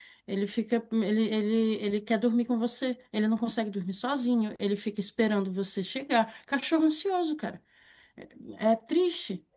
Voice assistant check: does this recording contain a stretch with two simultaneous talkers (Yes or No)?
No